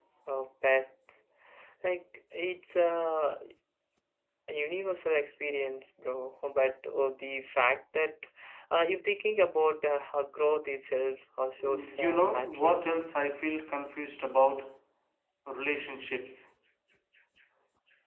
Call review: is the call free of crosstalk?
No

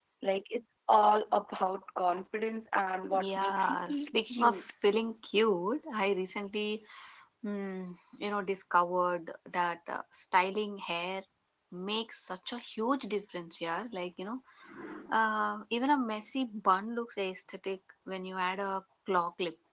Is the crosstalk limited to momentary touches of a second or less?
No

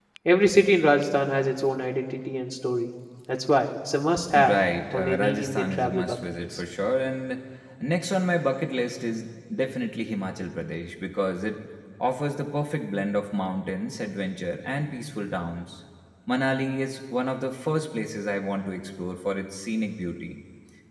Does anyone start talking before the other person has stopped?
Yes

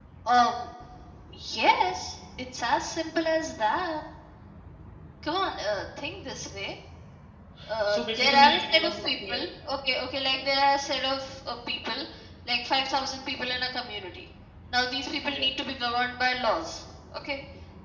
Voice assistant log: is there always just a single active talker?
No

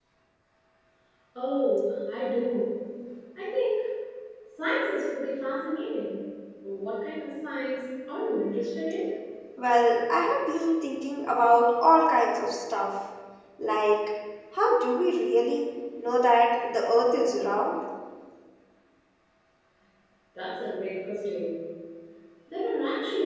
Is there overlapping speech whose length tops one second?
No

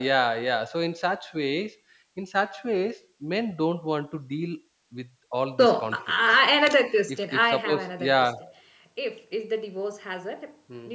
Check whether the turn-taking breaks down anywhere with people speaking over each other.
Yes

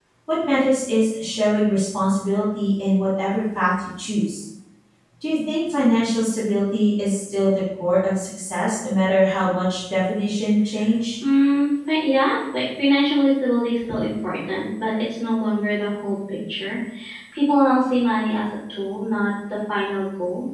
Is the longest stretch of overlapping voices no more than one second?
Yes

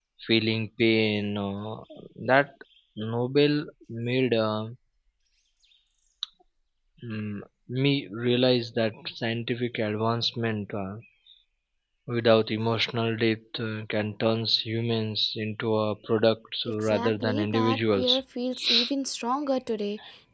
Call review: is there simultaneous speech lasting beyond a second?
Yes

